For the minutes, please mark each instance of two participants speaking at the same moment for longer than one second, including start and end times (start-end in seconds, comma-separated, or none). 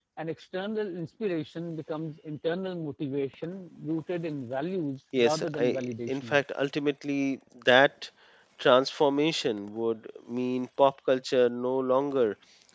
5.2-6.4